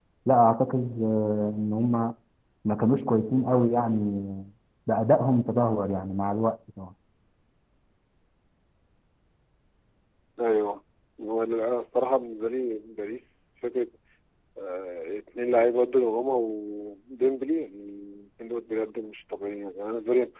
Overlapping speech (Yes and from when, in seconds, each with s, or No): No